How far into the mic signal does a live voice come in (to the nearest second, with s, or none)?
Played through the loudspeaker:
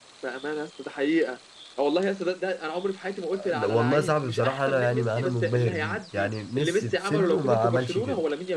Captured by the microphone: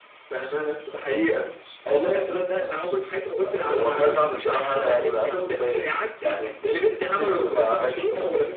none